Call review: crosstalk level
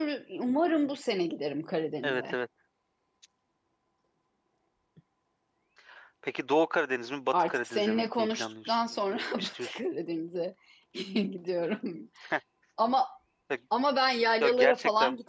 present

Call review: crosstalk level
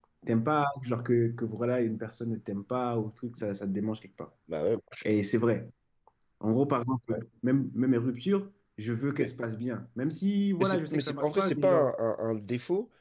present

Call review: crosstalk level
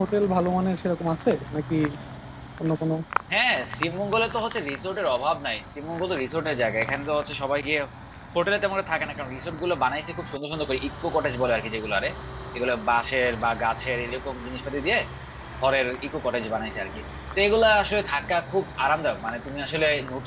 none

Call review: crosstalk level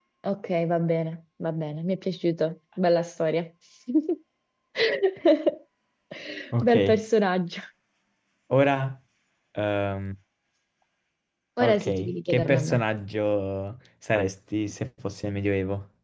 present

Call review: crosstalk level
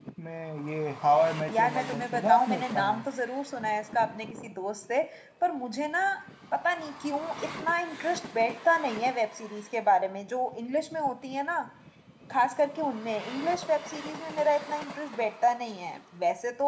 present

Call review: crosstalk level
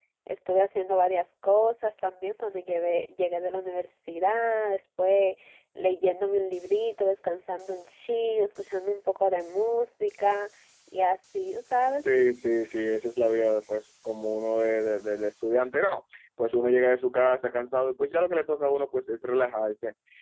none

